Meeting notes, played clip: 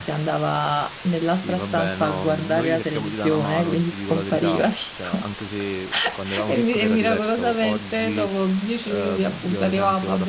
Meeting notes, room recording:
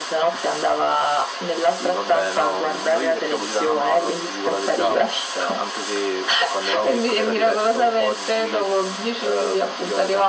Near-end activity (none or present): none